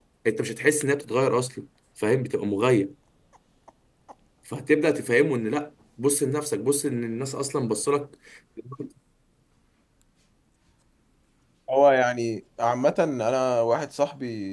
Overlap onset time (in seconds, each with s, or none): none